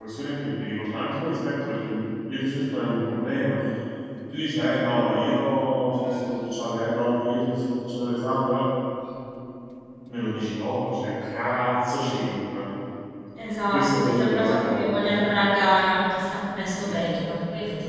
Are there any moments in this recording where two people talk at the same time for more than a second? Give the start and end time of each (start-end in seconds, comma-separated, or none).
13.6-14.9